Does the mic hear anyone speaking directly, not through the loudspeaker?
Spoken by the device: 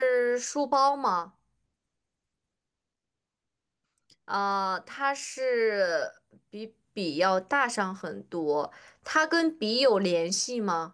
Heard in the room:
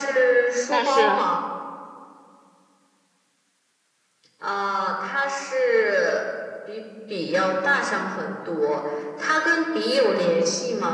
Yes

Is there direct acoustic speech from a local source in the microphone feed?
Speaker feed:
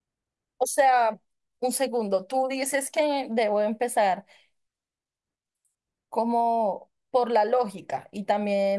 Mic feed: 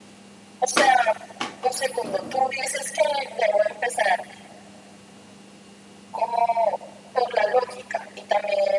No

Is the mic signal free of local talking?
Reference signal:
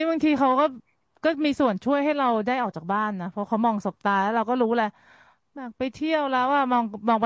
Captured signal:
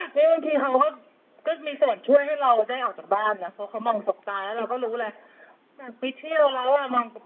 Yes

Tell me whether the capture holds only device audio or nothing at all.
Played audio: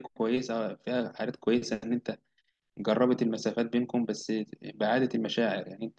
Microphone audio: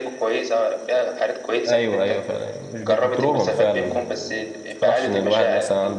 No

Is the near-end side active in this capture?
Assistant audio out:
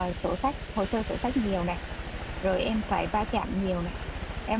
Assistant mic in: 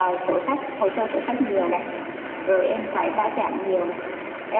No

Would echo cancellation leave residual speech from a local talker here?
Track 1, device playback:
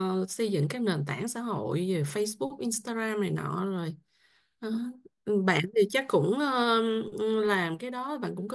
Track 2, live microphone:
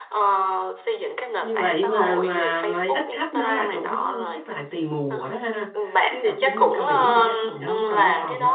Yes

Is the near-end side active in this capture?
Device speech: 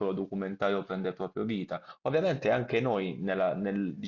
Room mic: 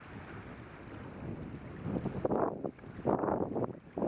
No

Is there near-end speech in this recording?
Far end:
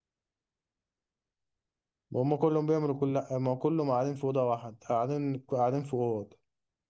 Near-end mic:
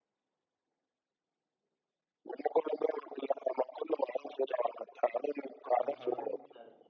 Yes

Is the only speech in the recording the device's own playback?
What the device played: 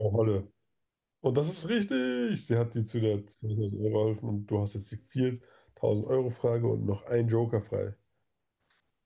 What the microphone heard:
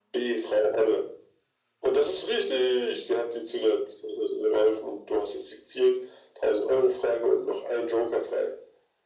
Yes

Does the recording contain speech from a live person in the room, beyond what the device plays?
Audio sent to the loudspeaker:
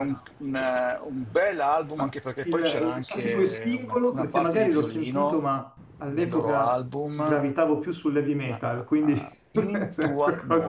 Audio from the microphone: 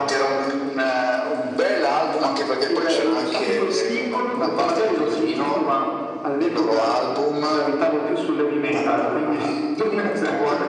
No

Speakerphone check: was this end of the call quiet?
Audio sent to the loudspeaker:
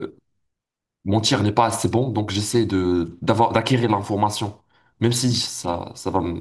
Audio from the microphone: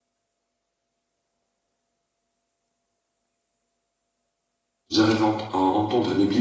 No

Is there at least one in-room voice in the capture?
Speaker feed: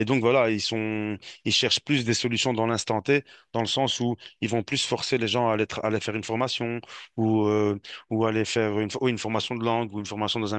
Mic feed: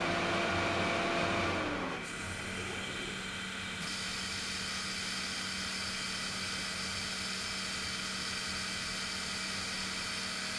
No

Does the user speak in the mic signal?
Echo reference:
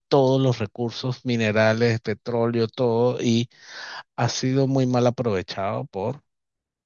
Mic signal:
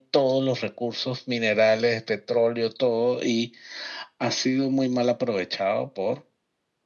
No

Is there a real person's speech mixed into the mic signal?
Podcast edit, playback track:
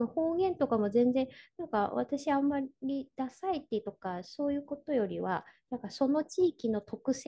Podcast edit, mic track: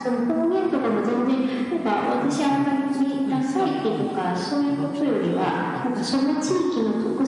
Yes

